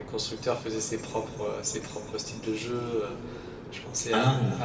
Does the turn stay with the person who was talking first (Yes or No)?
Yes